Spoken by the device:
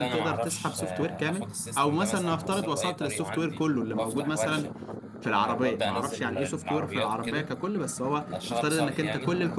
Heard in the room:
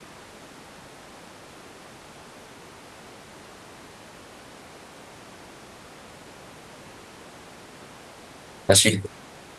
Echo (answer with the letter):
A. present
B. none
B